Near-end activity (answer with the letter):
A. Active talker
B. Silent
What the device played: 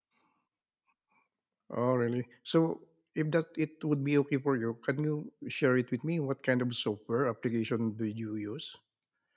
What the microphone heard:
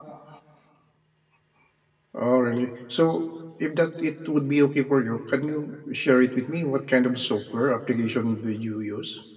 B